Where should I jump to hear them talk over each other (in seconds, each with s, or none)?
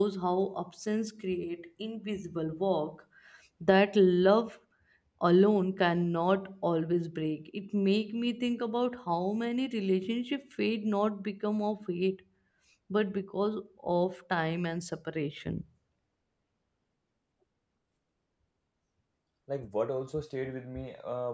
none